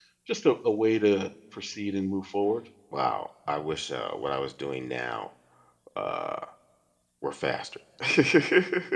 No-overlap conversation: Yes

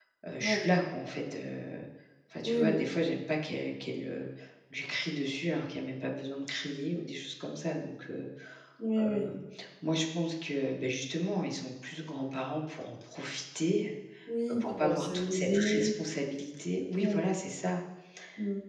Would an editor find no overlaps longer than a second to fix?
No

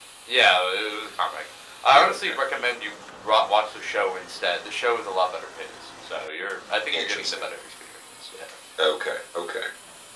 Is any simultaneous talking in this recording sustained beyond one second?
No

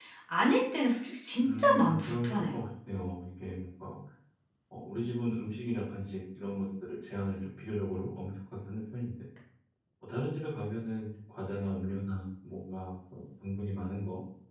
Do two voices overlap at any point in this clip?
Yes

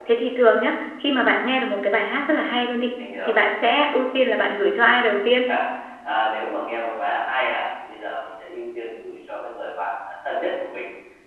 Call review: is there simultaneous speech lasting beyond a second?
No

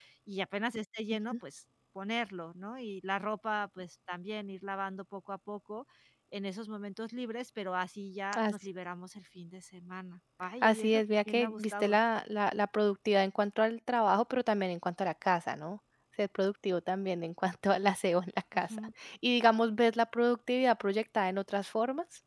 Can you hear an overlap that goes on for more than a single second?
Yes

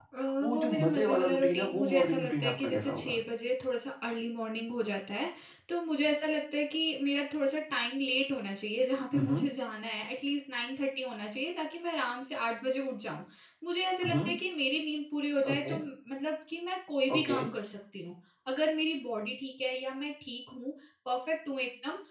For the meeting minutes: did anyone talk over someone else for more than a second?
Yes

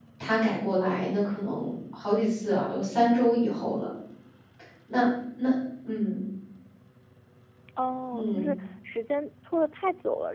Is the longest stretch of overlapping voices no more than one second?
Yes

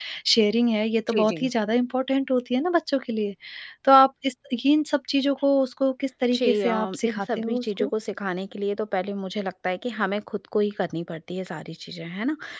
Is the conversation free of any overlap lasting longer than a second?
No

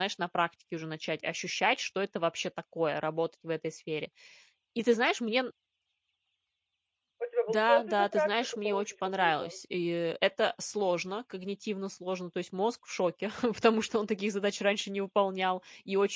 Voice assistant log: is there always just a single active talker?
No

